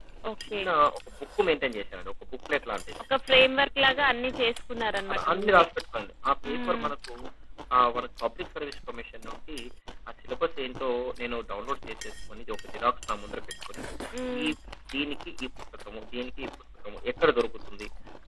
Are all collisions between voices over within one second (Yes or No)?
Yes